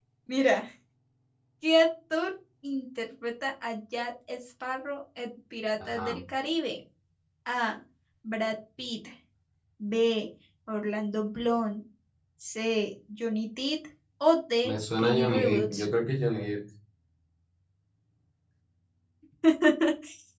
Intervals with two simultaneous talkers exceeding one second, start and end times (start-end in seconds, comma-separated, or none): 14.6-15.8